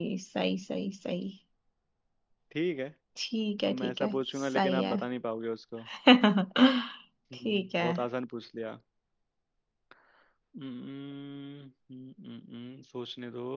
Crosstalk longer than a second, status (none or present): present